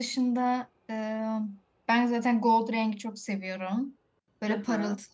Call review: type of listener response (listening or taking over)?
listening